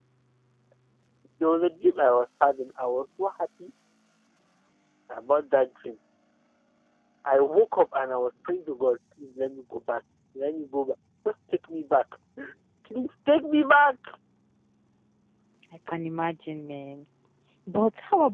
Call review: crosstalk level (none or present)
none